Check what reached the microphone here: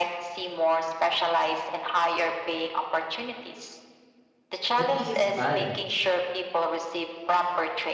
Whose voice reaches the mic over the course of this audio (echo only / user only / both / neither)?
both